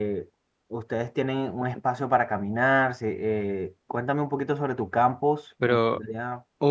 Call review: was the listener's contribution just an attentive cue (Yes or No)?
No